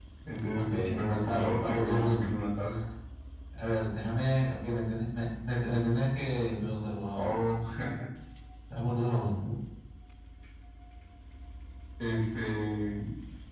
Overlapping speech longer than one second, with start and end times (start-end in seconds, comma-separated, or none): 0.5-2.3